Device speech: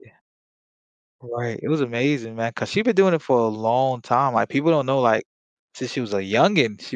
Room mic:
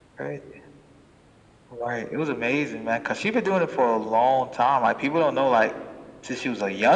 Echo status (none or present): present